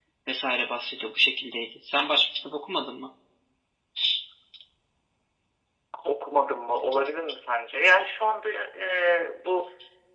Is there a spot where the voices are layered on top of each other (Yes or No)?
No